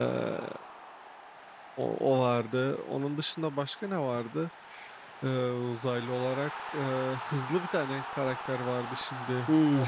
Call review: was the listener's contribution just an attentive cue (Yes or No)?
No